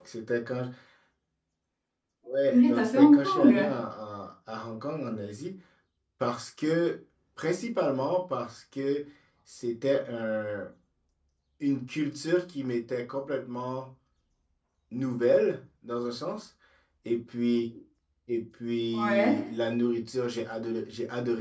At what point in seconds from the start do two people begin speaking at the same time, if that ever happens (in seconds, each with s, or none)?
2.5 s